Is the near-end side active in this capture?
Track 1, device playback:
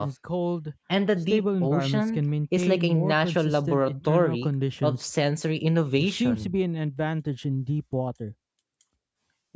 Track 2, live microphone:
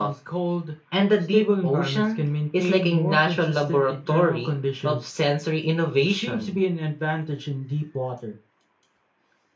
No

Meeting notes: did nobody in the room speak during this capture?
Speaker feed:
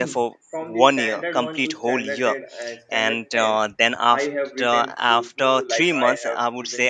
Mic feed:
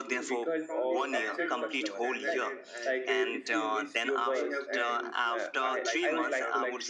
No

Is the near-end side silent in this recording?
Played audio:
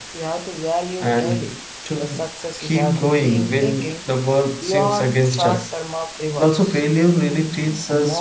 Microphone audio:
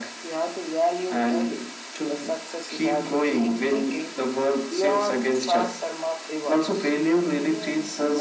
No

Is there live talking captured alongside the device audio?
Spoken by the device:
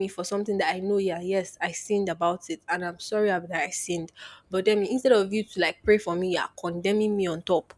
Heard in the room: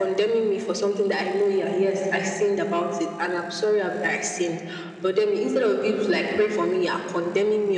No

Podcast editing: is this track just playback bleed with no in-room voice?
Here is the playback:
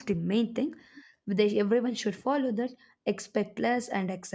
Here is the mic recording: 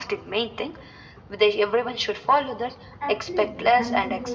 No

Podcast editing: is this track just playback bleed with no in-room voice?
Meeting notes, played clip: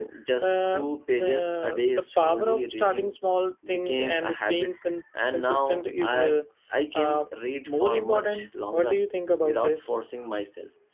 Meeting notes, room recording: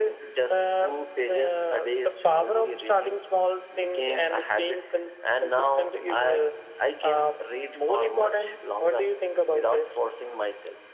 Yes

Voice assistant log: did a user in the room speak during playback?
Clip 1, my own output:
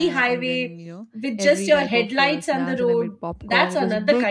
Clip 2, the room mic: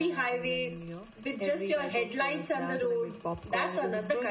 No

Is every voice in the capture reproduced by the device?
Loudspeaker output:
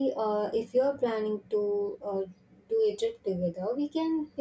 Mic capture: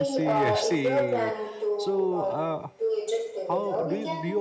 No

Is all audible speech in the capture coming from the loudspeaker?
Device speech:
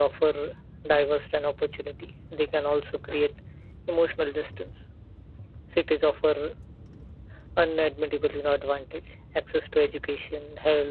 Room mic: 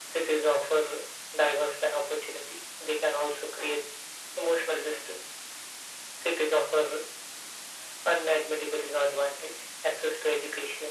Yes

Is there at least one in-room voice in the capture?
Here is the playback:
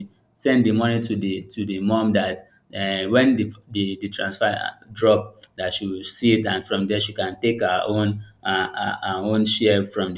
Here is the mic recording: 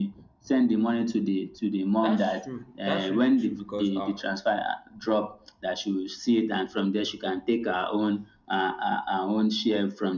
Yes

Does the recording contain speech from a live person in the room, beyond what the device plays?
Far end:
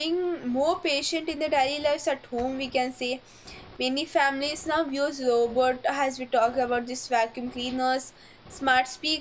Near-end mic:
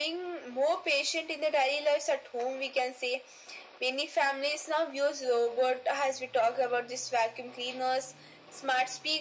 No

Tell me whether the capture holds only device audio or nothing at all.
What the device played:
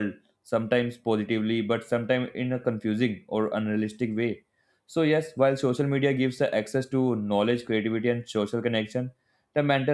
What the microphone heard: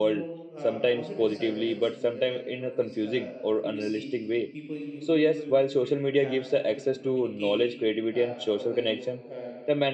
No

